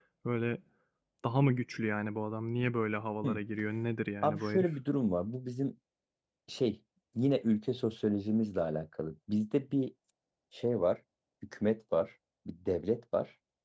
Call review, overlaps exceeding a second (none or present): none